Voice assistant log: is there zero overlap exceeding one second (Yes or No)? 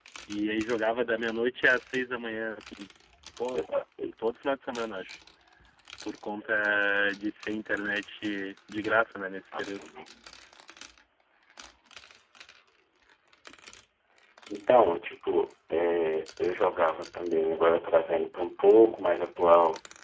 Yes